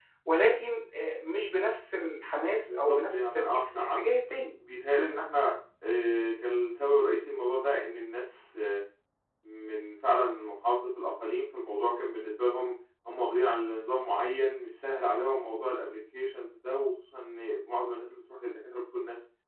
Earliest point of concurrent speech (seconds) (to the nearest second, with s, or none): 3 s